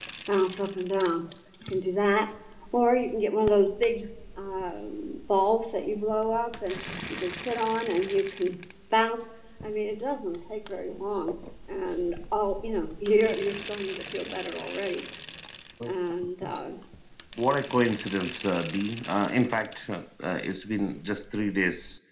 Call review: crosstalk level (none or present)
none